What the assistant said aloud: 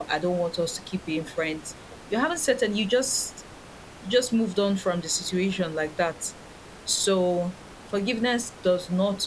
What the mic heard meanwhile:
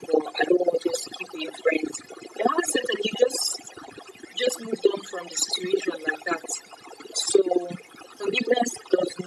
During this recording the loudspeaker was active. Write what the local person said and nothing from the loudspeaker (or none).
none